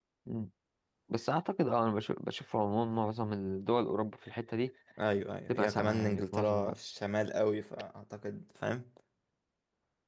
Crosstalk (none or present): present